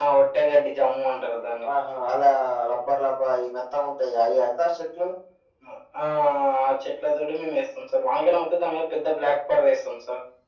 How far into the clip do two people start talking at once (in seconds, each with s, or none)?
none